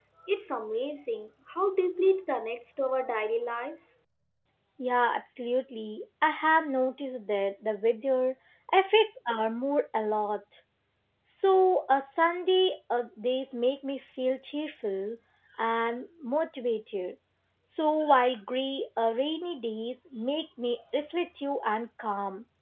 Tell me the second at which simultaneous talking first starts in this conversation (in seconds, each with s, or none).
none